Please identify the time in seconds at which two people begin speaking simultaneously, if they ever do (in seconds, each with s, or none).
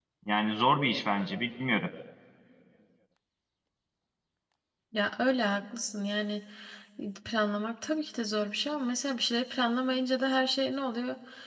none